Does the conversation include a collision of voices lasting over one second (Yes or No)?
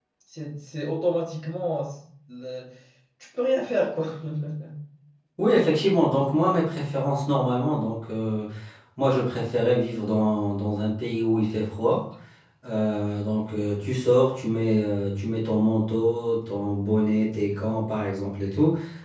No